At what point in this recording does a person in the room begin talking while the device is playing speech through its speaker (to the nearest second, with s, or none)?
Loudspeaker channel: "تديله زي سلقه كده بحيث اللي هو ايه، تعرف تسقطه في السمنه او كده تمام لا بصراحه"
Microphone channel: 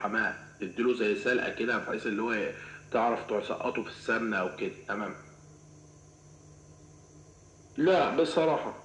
none